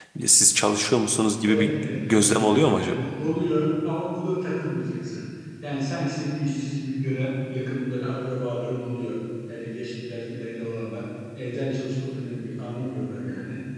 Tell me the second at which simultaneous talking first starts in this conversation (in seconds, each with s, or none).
1.4 s